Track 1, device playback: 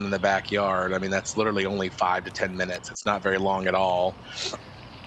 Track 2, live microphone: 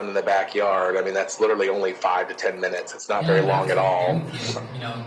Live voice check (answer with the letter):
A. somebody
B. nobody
A